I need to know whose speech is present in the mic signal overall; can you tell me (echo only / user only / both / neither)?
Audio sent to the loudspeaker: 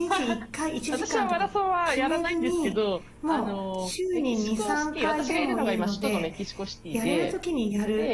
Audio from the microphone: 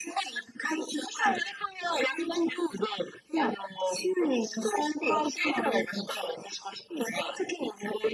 echo only